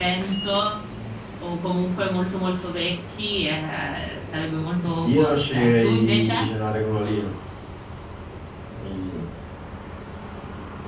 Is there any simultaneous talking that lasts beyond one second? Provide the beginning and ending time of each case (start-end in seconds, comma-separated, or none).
5.0-6.5